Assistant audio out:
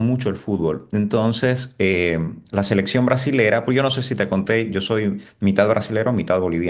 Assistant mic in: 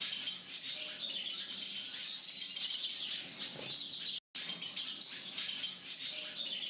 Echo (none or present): none